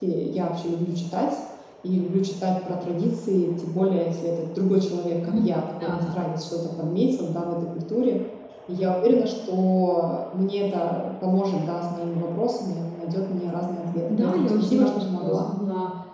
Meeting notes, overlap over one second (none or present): present